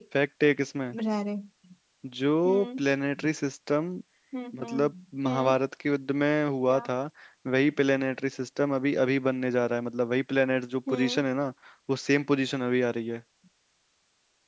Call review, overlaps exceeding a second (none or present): none